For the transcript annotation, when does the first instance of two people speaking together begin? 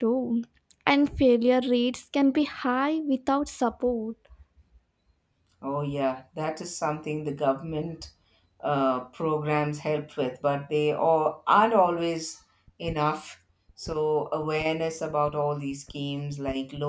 none

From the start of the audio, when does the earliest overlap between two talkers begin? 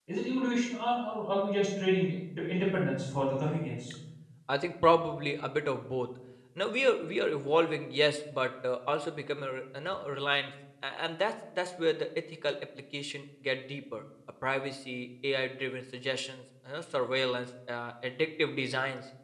none

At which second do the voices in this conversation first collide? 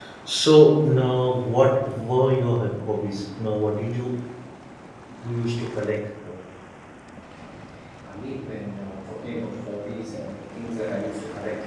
none

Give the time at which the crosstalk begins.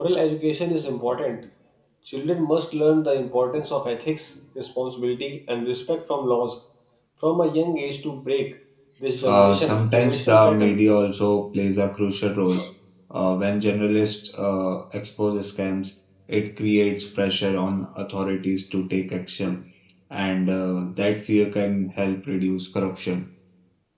9.2 s

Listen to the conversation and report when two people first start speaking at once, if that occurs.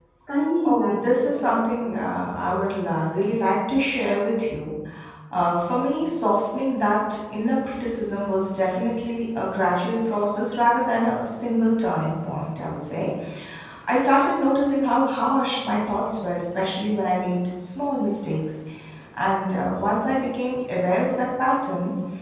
0.7 s

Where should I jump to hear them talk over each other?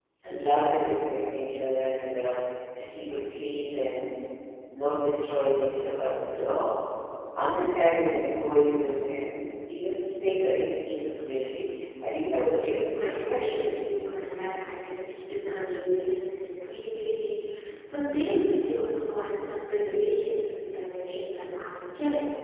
12.2 s

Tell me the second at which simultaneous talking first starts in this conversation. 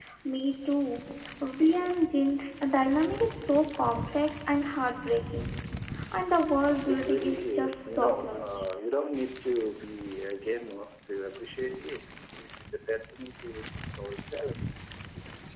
6.8 s

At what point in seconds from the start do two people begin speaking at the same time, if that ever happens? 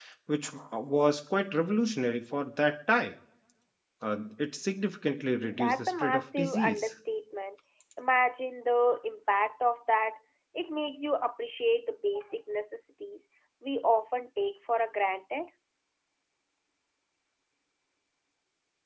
5.5 s

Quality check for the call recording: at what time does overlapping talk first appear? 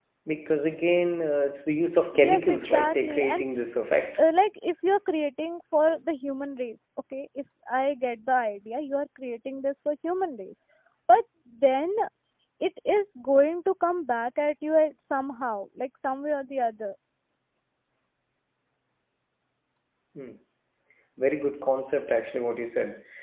2.1 s

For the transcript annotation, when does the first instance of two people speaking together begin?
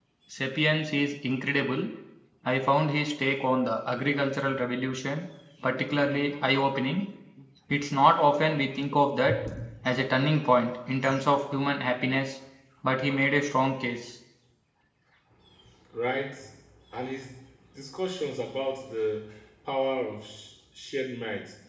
none

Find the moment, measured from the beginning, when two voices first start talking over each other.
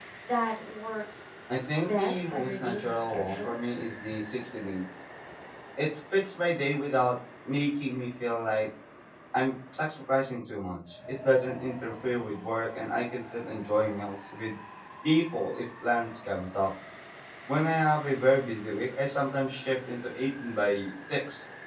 1.8 s

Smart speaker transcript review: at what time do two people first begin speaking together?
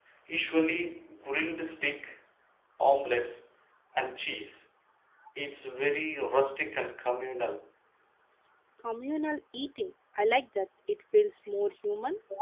none

